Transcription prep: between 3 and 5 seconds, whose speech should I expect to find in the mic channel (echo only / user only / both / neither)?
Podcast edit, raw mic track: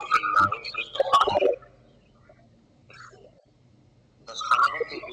echo only